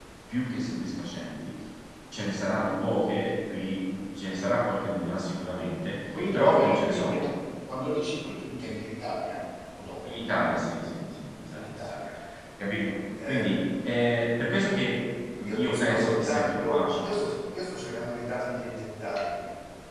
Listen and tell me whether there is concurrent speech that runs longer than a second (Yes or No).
Yes